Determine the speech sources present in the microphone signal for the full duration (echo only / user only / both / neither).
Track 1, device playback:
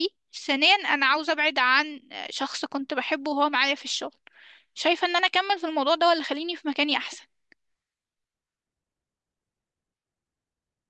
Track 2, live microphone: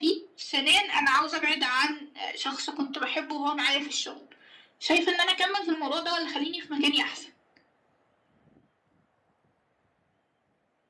echo only